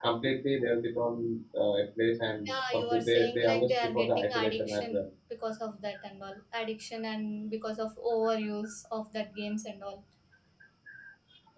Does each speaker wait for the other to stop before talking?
No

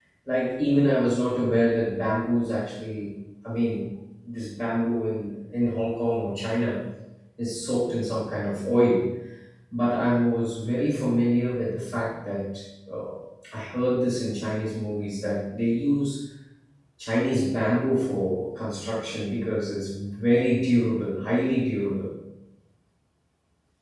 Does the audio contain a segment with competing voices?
No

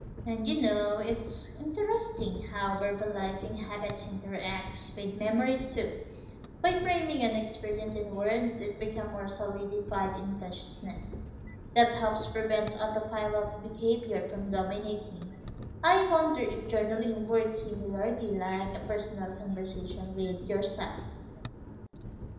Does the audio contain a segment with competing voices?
No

